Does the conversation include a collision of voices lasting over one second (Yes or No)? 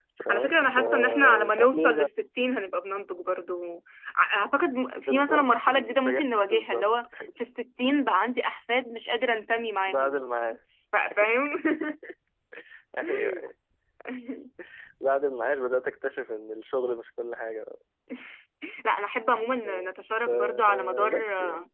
Yes